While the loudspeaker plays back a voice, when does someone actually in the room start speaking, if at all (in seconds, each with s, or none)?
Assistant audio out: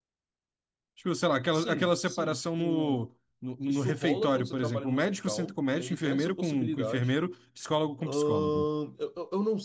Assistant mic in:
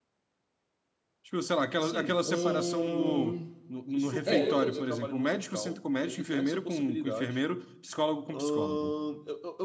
2.2 s